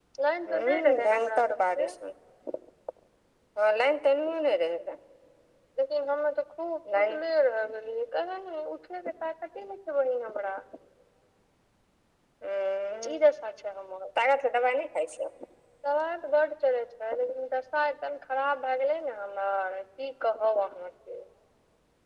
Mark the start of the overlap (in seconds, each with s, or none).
0.5 s